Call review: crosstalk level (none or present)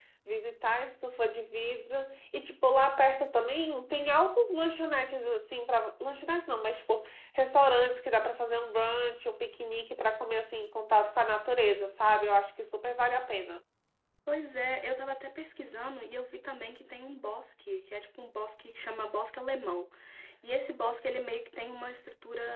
none